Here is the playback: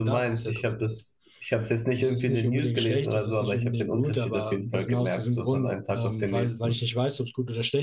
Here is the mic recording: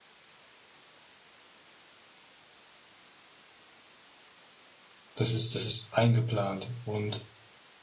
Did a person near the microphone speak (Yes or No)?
Yes